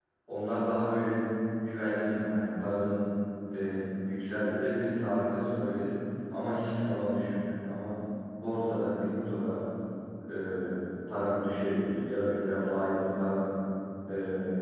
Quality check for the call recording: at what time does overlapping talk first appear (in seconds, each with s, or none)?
none